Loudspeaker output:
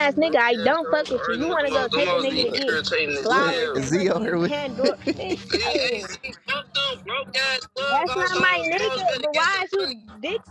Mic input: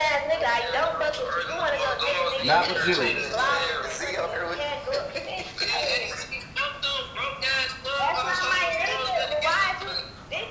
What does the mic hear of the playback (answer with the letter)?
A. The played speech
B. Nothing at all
A